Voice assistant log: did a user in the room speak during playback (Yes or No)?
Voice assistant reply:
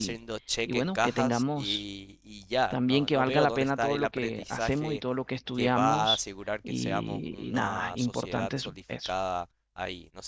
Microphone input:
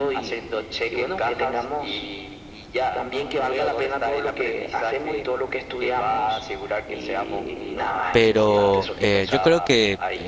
Yes